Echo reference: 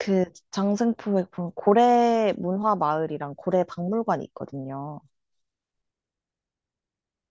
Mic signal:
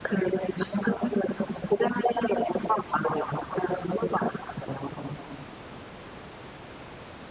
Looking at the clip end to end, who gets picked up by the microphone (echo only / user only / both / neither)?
echo only